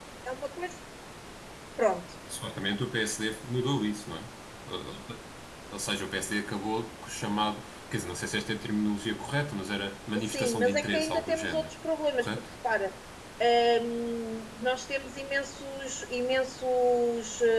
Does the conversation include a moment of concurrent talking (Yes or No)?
Yes